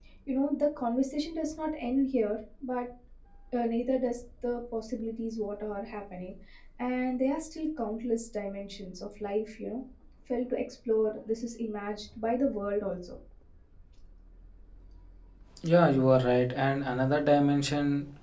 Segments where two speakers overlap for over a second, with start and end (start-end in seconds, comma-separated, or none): none